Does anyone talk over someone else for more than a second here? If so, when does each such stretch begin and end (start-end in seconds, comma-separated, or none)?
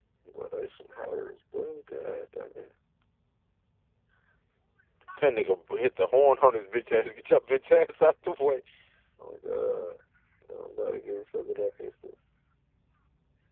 none